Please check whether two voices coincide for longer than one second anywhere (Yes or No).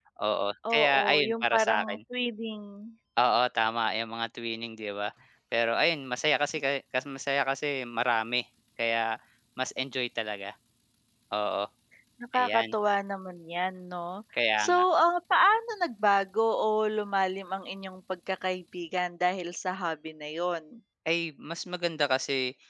Yes